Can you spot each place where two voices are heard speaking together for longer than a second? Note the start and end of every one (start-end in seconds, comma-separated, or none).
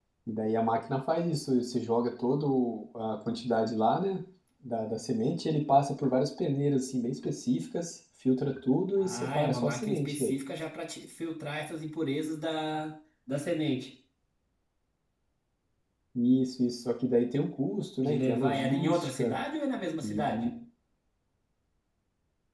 9.0-10.3, 18.0-19.4